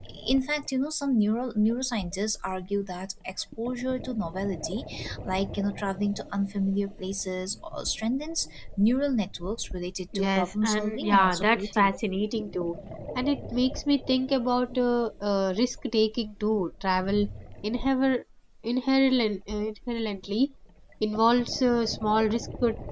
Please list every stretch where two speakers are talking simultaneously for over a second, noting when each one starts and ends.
10.2-12.1

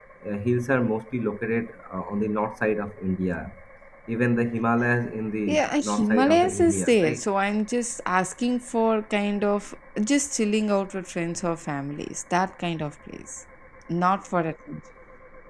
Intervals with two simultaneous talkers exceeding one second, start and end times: 5.5-7.2

